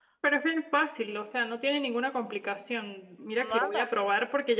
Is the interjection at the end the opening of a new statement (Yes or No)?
No